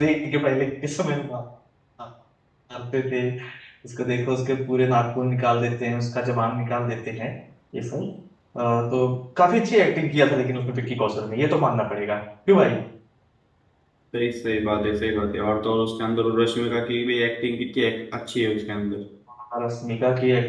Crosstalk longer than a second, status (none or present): none